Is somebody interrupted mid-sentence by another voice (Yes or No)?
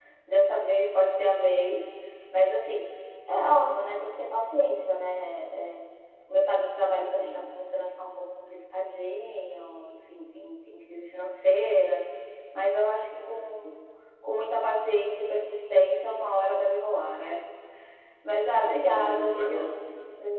Yes